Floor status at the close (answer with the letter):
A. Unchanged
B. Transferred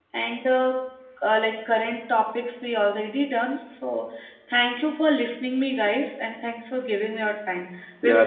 B